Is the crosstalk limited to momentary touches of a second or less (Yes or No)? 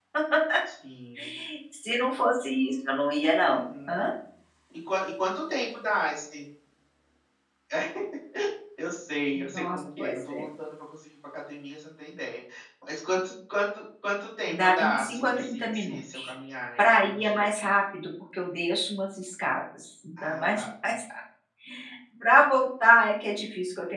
No